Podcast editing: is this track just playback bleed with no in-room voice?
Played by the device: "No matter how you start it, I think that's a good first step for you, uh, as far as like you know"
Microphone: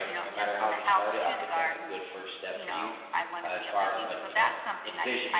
No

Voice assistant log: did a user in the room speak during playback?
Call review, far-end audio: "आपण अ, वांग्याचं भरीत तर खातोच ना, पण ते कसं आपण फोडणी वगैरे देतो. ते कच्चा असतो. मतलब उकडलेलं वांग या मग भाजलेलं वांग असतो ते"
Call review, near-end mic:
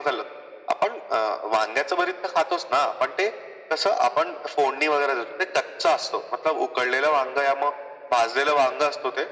No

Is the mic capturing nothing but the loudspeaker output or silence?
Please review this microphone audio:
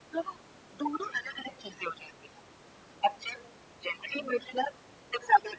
Yes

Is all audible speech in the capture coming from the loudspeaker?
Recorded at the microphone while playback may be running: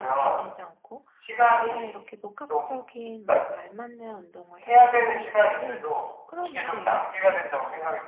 No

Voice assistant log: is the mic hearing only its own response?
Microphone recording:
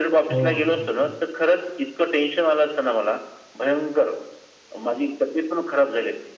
No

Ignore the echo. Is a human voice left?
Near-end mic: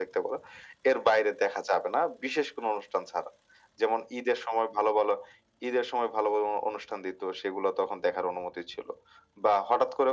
No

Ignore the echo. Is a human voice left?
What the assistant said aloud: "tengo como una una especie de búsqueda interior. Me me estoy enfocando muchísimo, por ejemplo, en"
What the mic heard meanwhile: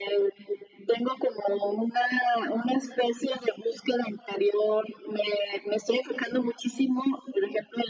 No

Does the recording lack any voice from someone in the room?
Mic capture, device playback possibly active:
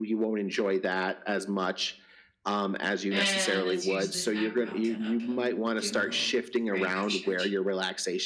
No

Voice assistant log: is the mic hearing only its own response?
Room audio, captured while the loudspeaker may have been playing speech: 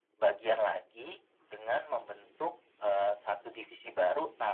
Yes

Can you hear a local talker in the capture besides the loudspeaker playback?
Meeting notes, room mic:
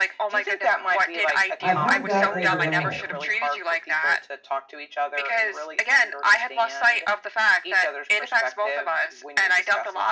Yes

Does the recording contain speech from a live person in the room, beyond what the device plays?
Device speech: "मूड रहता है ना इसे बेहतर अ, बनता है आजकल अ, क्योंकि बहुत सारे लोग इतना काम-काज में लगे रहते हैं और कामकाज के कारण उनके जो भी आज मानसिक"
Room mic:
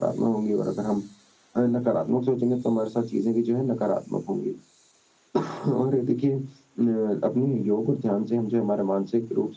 Yes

